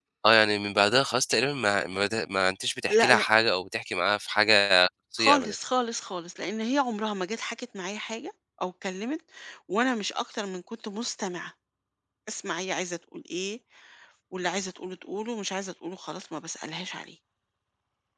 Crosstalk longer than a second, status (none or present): none